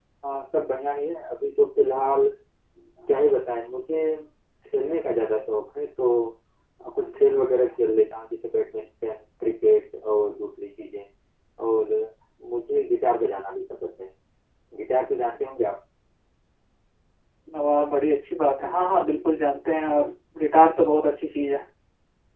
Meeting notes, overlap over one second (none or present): none